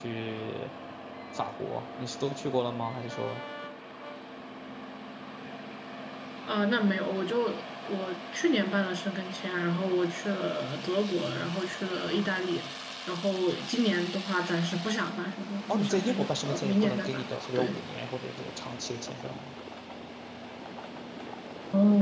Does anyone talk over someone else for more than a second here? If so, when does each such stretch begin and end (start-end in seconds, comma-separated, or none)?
15.7-17.8